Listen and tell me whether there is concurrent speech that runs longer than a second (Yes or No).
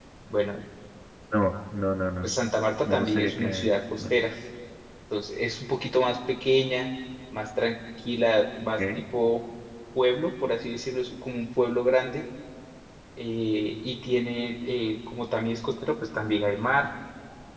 Yes